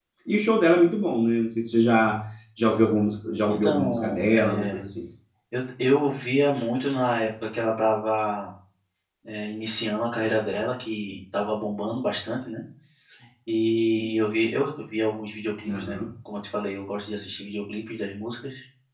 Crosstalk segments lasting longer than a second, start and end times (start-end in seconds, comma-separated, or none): 3.5-4.8